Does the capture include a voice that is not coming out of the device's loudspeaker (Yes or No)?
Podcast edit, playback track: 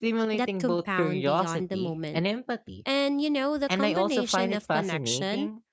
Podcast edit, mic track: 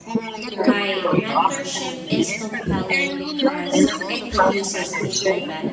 Yes